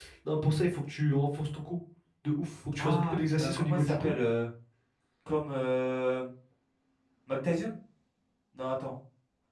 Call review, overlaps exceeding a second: present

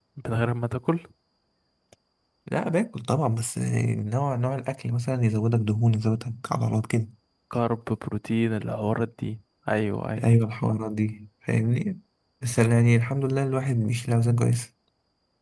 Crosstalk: none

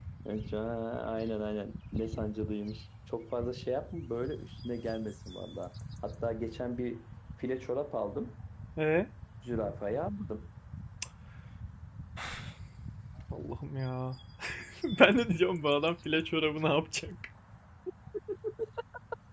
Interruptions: none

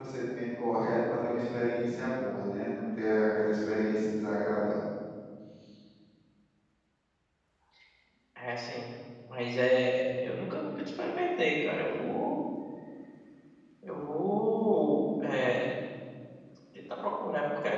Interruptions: none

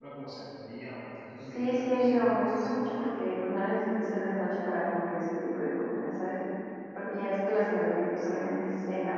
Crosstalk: present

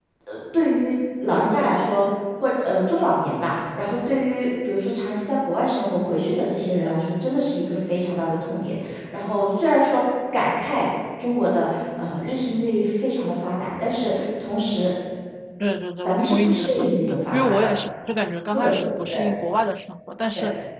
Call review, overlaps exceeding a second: present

